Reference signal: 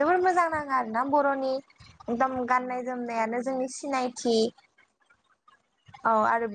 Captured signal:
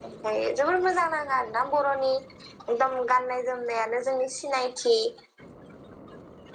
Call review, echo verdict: present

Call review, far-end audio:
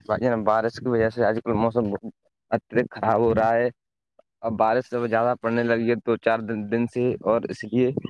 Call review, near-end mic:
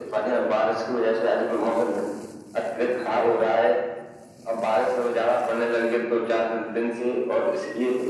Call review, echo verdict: present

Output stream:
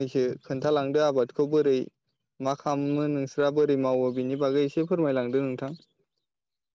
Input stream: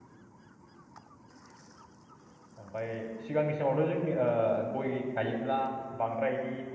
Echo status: none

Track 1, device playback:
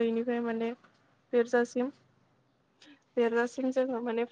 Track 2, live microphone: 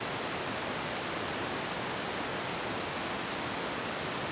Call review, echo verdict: none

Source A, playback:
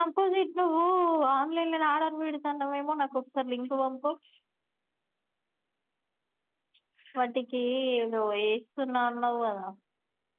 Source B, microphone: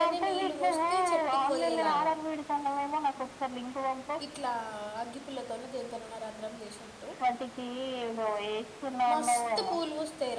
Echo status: present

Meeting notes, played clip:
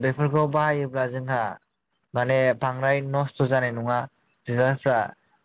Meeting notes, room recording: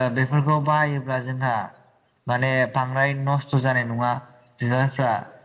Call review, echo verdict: present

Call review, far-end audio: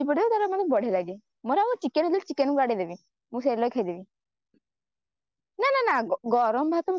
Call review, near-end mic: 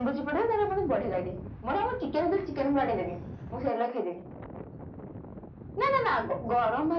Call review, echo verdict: present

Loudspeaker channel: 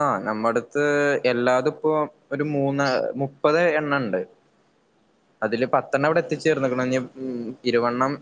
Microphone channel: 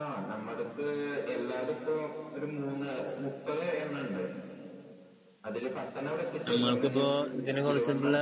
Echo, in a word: present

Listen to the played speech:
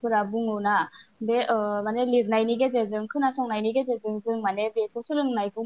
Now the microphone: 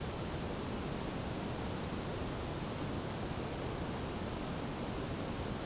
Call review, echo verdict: none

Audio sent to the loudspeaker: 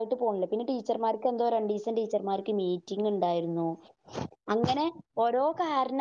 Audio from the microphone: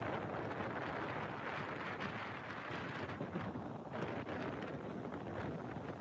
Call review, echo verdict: none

